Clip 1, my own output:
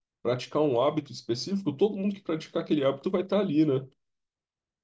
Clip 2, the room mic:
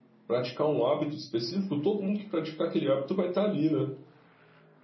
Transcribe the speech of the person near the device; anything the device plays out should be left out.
none

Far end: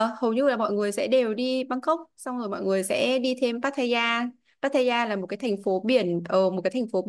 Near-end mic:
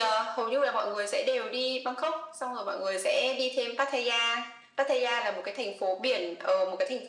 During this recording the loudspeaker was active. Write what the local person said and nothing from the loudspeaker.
none

